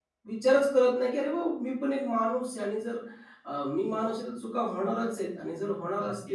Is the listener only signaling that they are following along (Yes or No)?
No